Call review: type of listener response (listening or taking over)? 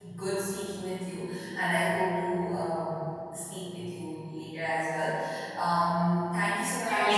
taking over